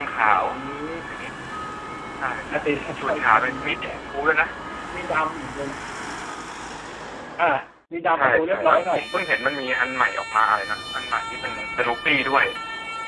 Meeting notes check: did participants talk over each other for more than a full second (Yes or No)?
Yes